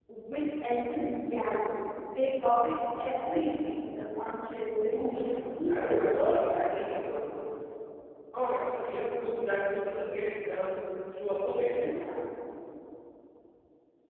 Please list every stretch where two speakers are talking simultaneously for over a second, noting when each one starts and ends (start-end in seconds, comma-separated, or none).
4.9-6.9